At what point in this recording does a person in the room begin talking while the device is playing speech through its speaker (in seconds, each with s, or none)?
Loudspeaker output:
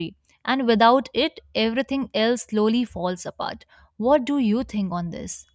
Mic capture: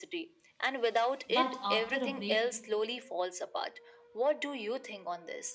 1.3 s